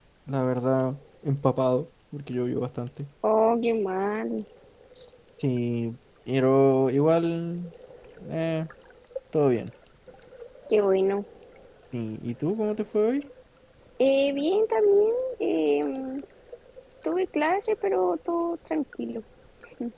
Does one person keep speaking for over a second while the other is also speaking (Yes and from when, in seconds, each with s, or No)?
No